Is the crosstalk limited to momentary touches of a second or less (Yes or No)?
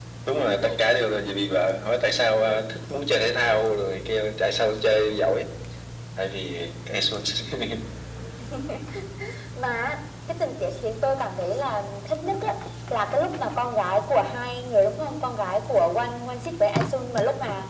Yes